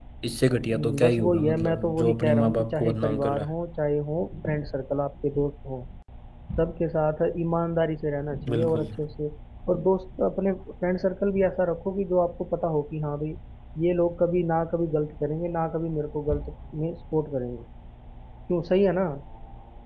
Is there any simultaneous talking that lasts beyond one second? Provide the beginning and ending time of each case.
0.7-3.5

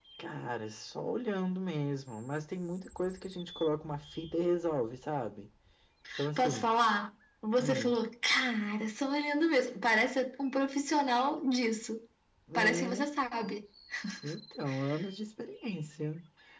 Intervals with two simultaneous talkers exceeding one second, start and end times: none

